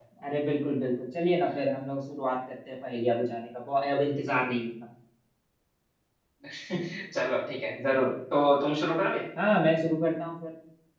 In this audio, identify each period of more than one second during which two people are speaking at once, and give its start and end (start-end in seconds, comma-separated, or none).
none